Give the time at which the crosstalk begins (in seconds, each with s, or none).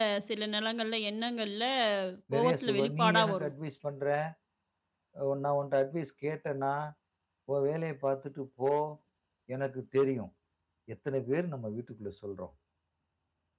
2.3 s